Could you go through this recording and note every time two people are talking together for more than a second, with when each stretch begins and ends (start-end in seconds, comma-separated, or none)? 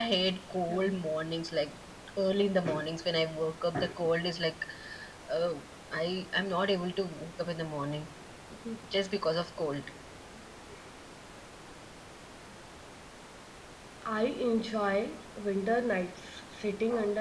none